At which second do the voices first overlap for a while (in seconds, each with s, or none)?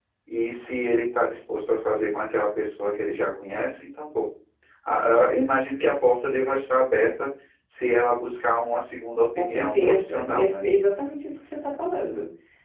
9.4 s